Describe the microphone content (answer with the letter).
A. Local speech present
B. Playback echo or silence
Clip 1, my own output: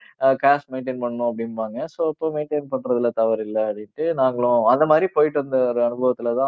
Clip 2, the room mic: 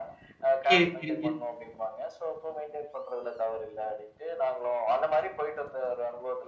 A